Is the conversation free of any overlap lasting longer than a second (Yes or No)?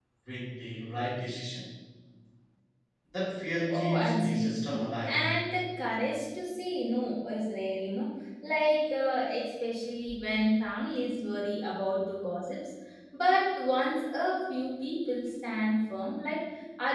No